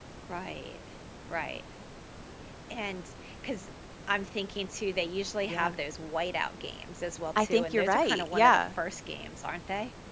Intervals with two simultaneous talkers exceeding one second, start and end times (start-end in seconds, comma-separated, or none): 7.3-8.7